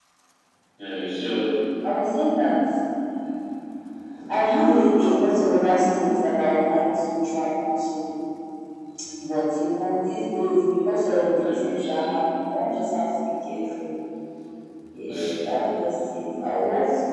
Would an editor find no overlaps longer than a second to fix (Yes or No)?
No